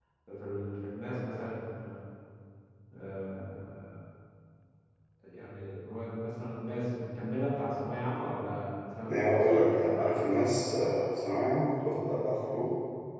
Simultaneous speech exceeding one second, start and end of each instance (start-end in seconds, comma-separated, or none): 9.1-10.3